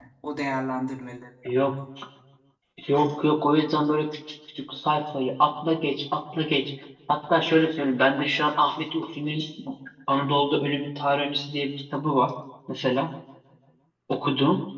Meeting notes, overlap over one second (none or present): none